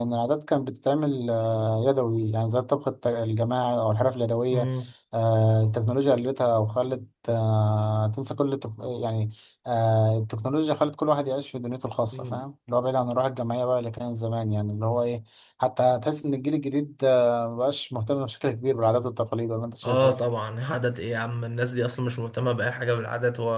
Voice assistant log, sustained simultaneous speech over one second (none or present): none